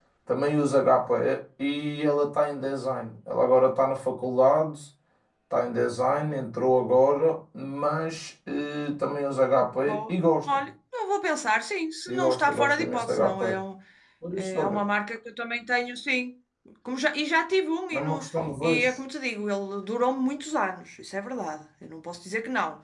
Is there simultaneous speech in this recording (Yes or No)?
Yes